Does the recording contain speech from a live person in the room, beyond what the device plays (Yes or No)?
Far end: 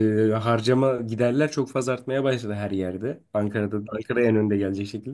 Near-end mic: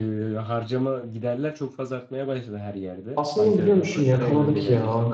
Yes